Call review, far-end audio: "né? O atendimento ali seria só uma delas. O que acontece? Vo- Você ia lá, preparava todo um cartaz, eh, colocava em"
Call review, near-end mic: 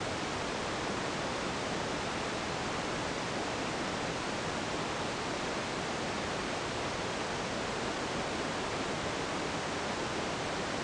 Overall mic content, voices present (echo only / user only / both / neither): neither